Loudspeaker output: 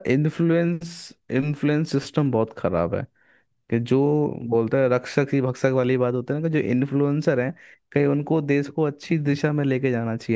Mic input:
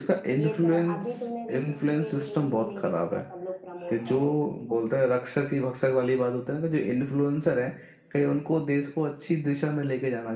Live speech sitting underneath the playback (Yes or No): Yes